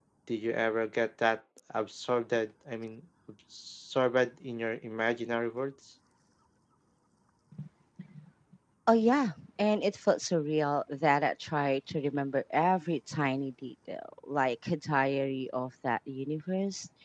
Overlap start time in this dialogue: none

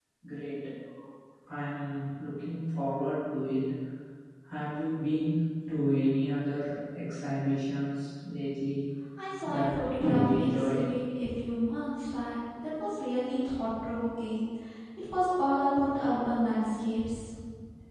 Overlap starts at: 9.4 s

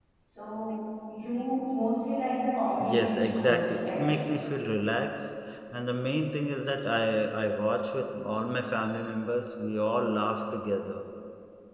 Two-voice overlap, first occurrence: 2.8 s

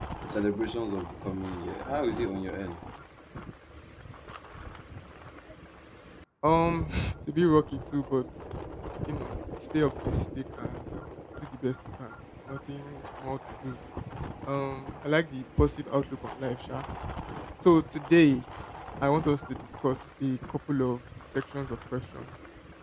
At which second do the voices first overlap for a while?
none

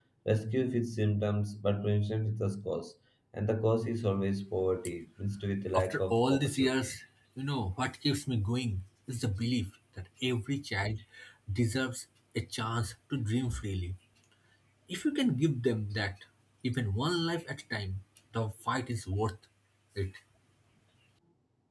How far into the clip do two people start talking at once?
5.7 s

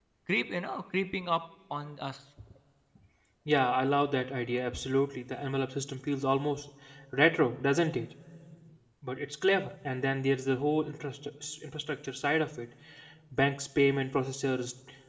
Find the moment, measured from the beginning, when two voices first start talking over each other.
none

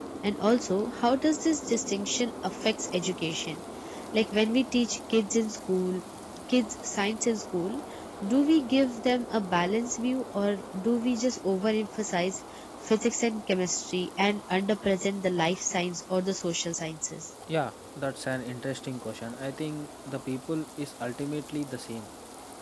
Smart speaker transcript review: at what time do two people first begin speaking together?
none

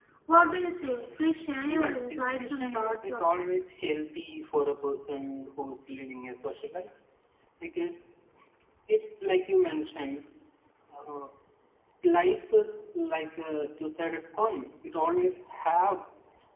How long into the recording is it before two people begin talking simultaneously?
1.7 s

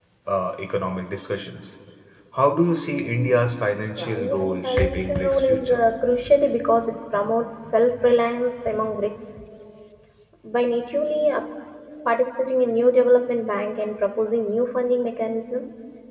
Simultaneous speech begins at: 4.0 s

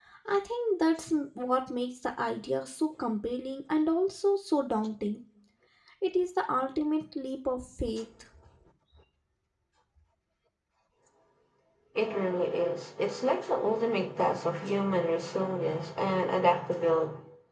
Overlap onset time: none

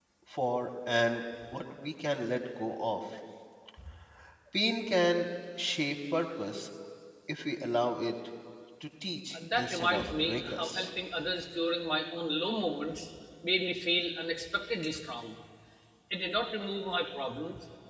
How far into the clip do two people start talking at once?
9.3 s

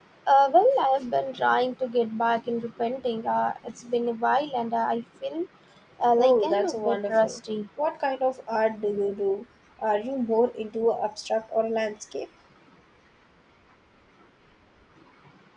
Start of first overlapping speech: 6.2 s

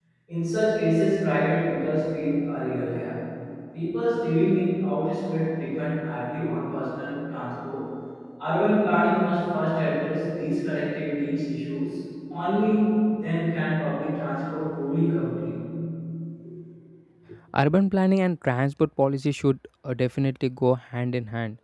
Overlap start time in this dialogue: none

